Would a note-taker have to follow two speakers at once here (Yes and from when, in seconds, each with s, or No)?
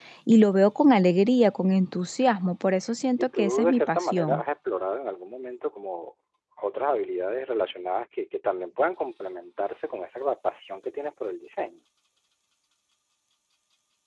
Yes, from 3.2 s